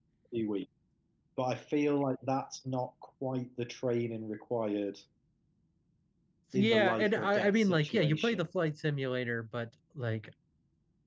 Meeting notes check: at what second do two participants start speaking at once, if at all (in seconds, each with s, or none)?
6.5 s